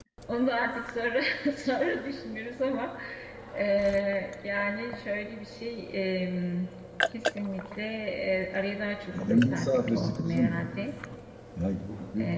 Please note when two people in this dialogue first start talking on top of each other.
9.2 s

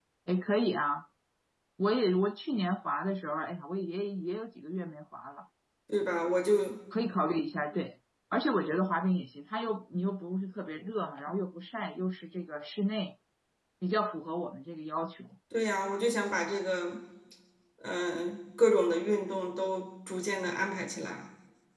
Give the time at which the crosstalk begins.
none

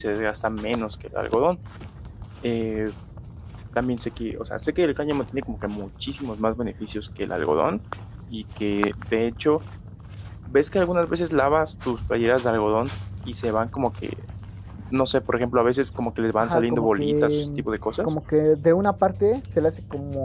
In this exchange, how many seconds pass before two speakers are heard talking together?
16.4 s

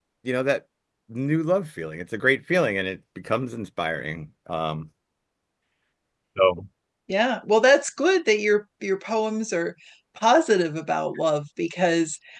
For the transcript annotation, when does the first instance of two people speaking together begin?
none

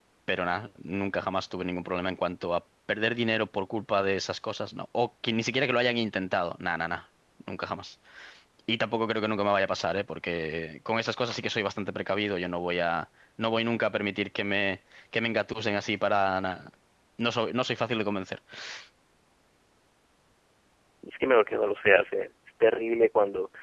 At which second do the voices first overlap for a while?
none

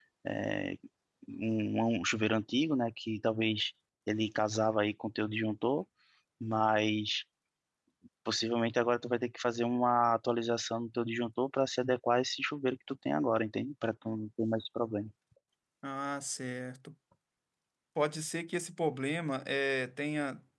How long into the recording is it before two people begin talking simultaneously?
none

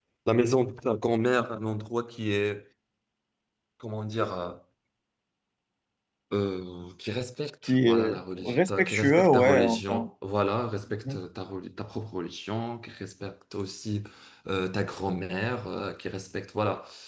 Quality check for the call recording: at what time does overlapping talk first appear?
7.7 s

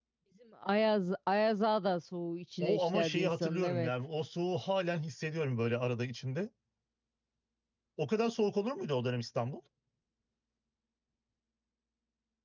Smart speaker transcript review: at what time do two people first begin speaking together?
2.6 s

